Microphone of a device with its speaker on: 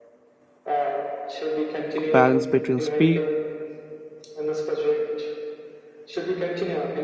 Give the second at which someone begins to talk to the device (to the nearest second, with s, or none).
2 s